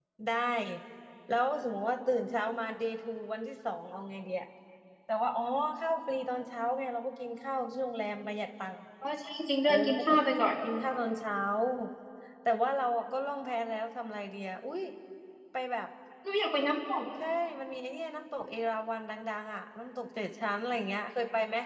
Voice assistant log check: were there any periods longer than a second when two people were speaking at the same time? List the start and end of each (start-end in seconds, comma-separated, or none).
none